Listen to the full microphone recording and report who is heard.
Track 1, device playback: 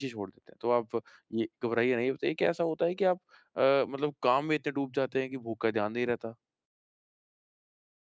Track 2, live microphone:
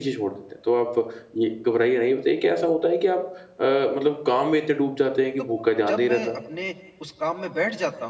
both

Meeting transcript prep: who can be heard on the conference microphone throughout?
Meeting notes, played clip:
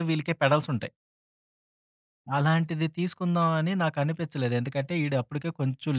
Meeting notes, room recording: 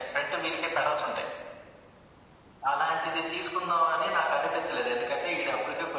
echo only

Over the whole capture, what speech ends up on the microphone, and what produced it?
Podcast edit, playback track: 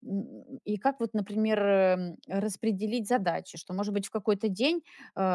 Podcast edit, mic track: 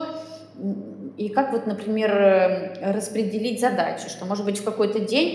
echo only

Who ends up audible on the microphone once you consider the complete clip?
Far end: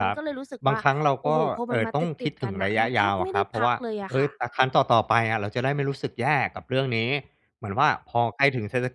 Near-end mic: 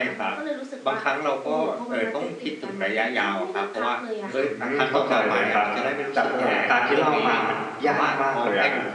both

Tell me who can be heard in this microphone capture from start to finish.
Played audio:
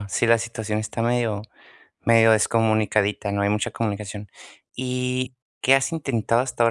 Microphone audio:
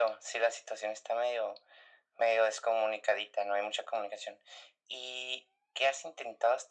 echo only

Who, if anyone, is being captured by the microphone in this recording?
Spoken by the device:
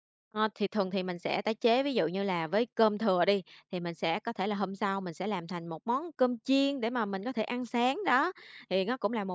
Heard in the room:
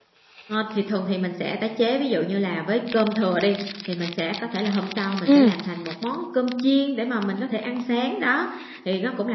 both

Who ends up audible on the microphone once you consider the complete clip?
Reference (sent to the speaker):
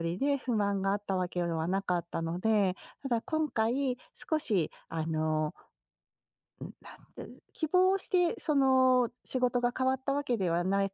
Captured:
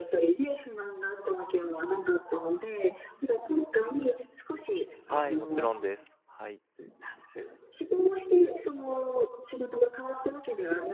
both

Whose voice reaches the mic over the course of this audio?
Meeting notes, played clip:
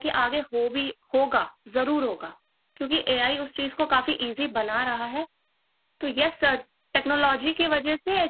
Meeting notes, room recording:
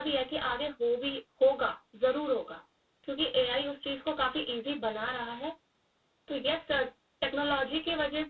echo only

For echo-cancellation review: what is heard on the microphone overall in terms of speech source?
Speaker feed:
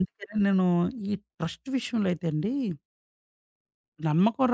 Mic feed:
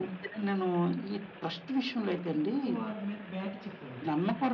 both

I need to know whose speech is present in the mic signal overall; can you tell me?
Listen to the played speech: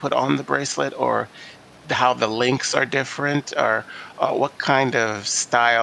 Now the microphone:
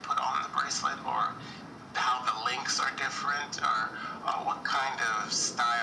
echo only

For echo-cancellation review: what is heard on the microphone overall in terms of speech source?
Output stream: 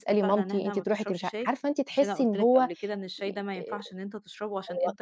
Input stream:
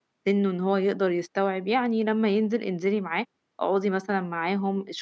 user only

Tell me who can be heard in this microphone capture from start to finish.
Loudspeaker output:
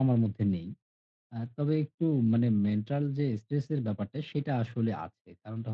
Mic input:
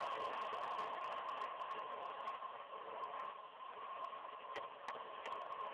neither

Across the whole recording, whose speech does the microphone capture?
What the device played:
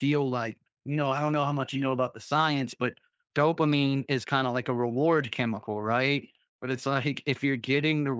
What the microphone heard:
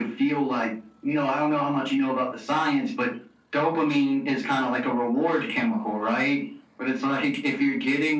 echo only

